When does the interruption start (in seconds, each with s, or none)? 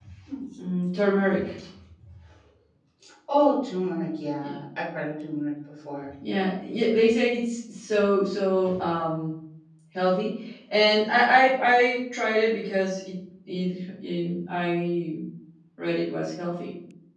none